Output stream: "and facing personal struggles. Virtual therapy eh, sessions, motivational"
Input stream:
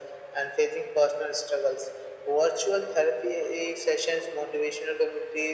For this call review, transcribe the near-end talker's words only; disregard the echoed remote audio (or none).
none